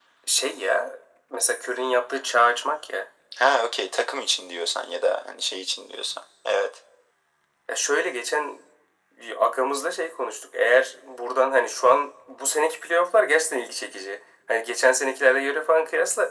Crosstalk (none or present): none